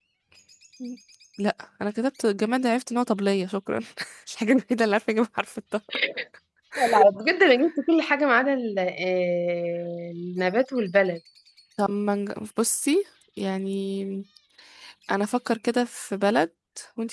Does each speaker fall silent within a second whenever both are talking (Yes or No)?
Yes